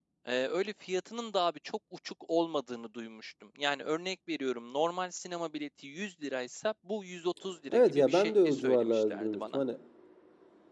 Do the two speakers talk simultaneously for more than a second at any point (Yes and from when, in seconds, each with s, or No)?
Yes, from 7.7 s